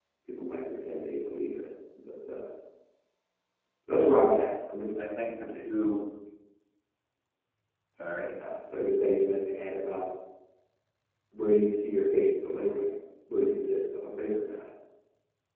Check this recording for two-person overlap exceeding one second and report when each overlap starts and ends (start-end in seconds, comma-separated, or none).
none